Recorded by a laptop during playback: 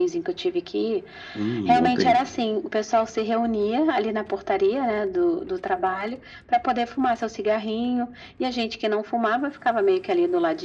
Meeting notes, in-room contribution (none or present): present